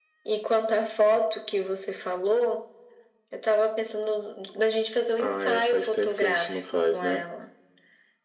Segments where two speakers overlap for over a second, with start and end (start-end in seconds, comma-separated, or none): 5.2-7.2